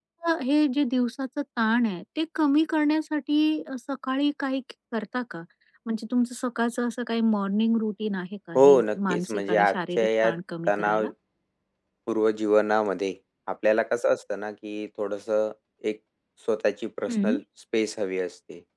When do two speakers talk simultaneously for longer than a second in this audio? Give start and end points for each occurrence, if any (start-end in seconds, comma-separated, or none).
8.6-10.3